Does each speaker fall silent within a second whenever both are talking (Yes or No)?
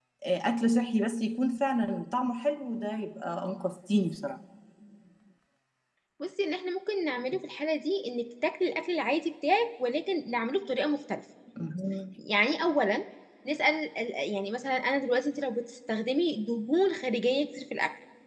Yes